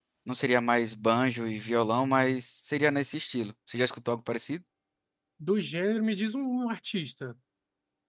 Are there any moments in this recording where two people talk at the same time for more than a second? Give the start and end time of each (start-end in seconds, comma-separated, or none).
none